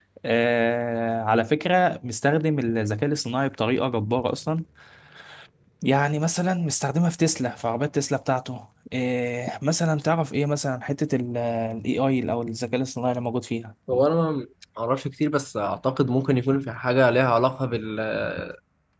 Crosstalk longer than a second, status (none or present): none